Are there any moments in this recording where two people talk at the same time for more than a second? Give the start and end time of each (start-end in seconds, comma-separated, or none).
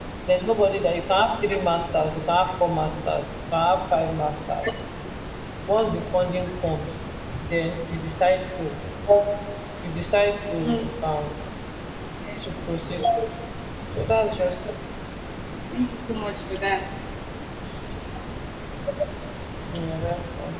none